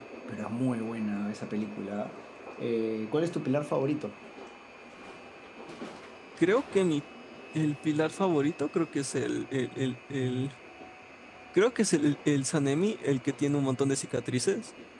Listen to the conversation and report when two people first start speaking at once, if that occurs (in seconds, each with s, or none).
none